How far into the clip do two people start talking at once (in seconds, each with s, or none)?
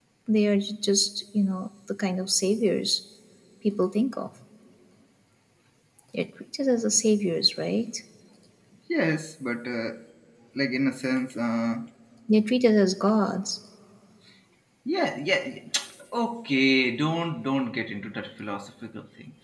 none